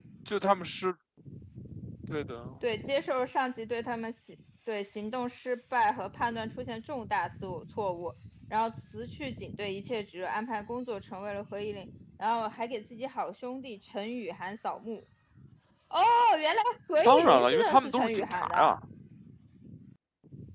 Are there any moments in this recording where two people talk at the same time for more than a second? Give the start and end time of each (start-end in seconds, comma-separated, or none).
17.1-18.8